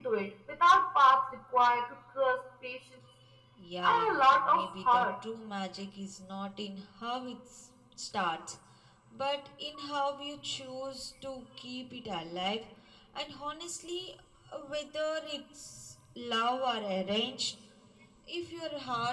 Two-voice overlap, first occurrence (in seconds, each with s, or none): 3.8 s